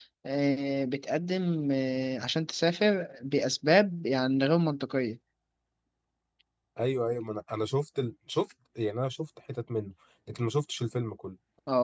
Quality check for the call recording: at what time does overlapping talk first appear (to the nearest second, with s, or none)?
none